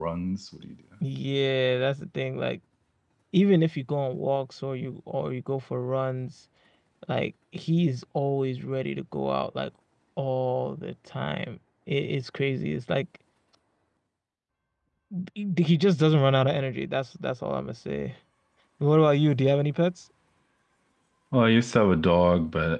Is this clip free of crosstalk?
Yes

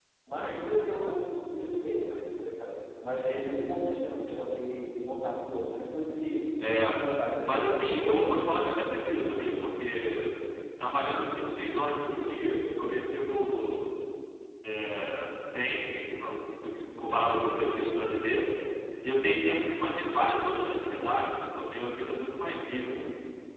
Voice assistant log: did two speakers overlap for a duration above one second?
Yes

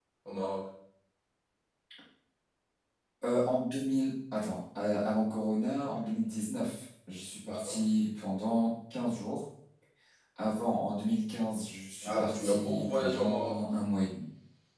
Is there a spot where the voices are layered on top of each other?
Yes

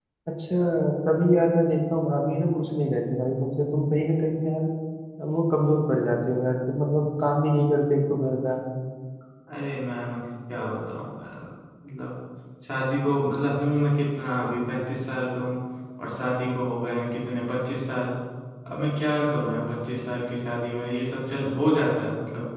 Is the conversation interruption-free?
Yes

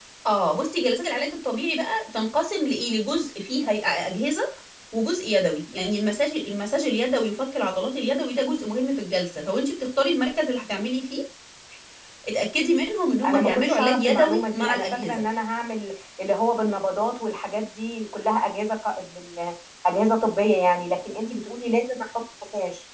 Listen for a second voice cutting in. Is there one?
Yes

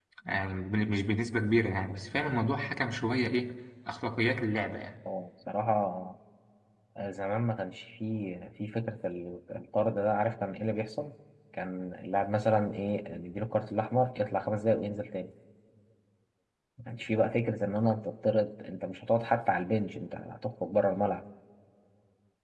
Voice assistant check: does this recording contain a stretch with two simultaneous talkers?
No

